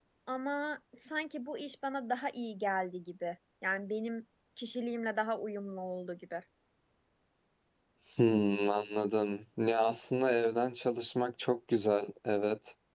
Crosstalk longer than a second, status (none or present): none